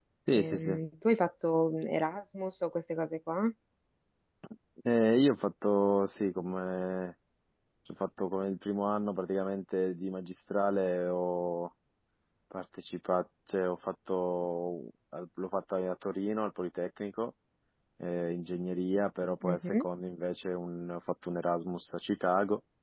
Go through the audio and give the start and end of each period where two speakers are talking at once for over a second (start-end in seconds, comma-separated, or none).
none